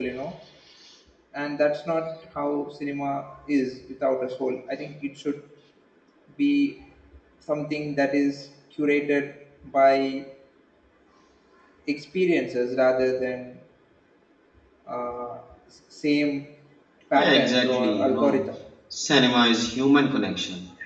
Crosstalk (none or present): present